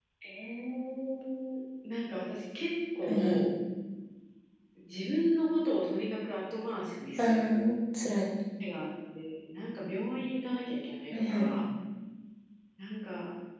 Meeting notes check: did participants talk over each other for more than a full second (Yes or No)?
No